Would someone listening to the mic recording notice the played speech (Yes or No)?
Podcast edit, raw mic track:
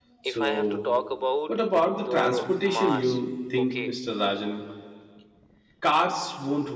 Yes